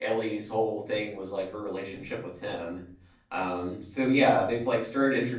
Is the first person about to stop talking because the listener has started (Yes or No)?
No